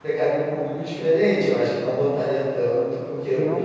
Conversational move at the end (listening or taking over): taking over